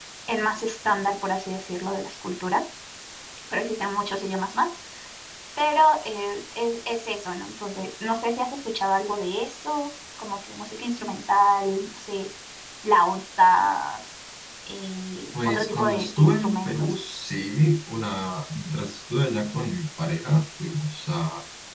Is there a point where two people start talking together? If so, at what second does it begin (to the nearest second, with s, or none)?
15 s